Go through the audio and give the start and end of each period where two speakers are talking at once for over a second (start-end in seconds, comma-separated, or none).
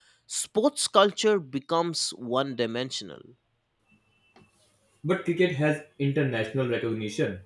none